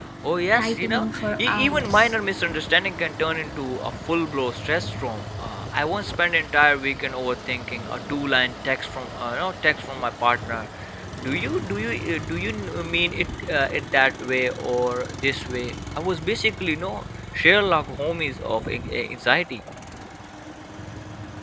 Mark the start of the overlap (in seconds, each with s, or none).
0.6 s